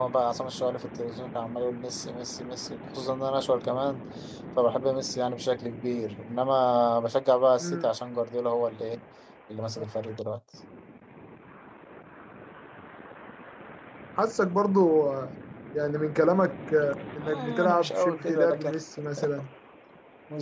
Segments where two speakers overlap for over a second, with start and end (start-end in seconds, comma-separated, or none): 17.2-18.7